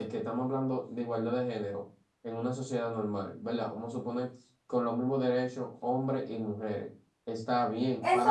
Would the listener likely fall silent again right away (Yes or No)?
Yes